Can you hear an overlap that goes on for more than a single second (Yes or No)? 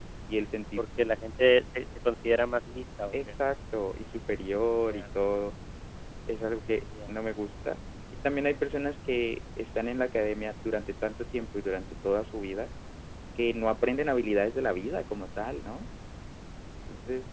No